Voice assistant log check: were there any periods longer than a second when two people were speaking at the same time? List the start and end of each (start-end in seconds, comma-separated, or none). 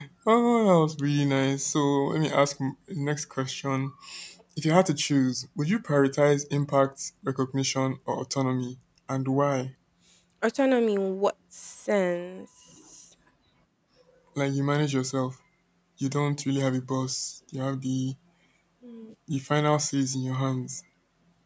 none